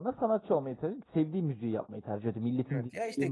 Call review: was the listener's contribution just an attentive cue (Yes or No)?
No